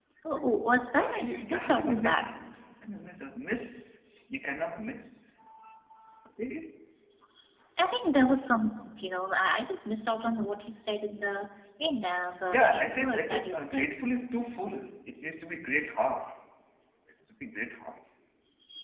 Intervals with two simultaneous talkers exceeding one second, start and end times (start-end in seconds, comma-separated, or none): 1.0-2.3, 12.5-13.9